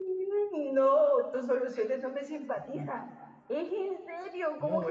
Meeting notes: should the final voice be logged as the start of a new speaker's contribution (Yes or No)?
Yes